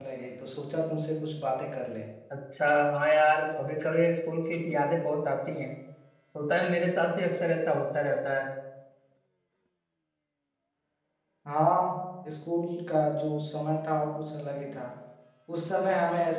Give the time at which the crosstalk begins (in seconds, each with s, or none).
none